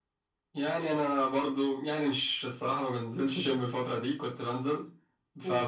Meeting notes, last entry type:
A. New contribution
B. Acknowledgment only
B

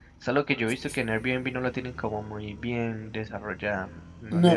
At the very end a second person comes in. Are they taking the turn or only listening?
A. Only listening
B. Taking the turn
B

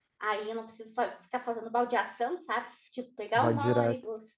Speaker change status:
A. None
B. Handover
A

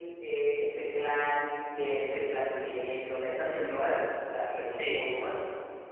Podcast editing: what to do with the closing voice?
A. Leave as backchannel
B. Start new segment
A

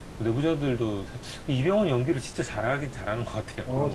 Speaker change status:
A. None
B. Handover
B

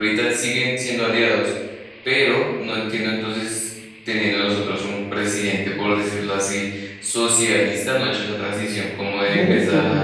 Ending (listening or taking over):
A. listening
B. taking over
B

